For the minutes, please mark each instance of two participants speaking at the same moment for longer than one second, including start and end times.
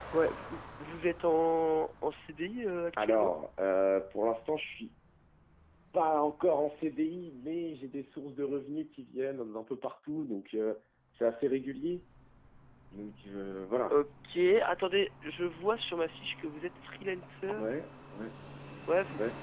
none

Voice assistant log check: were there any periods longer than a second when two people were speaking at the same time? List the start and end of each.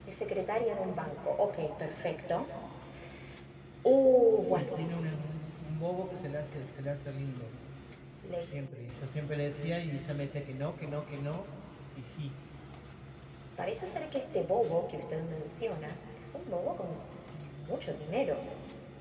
none

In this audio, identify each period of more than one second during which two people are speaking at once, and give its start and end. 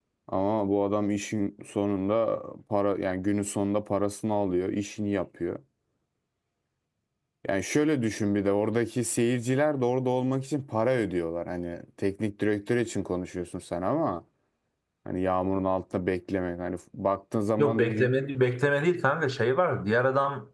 none

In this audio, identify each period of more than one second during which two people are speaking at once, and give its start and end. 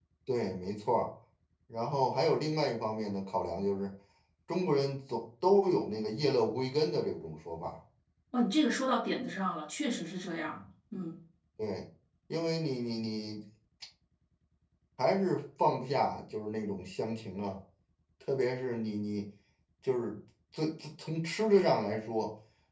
none

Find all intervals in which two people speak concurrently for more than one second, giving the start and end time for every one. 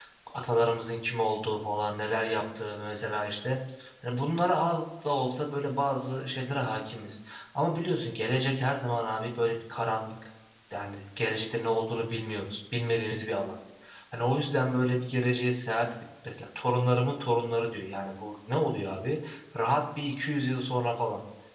none

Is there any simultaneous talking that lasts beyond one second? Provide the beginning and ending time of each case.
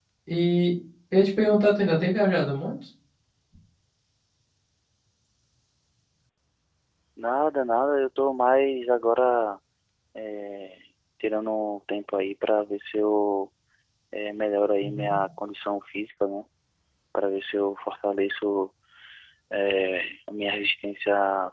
none

